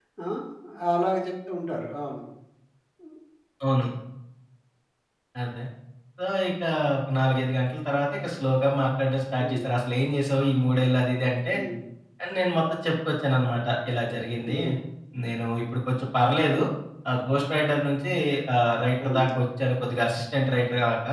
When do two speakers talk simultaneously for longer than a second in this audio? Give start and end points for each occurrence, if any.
none

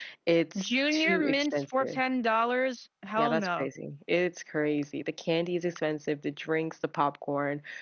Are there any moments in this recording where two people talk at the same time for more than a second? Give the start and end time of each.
0.6-2.0

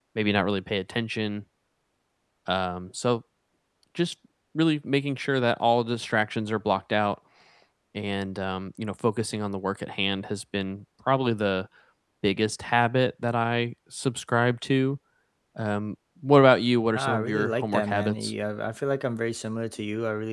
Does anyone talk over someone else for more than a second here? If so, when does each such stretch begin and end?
16.9-18.3

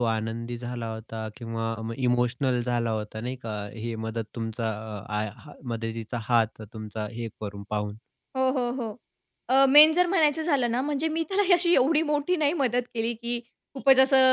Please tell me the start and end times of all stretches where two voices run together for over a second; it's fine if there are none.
none

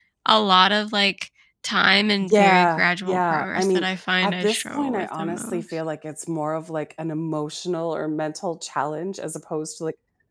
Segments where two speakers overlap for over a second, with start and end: 2.2-5.8

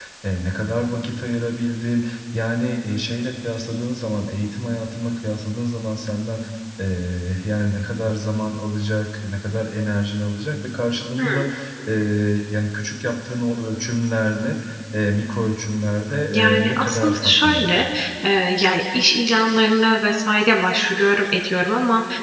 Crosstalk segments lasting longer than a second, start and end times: 16.3-17.8

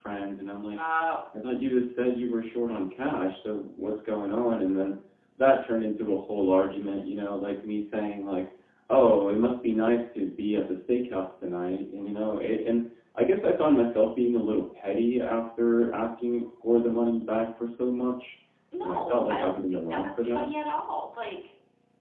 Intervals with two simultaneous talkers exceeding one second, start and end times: 18.8-20.4

